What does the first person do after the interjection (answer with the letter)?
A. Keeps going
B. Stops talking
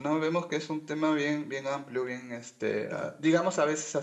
A